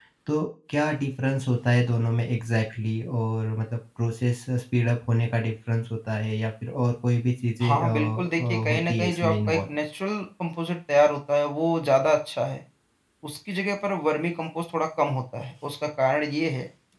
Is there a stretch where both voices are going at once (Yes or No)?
Yes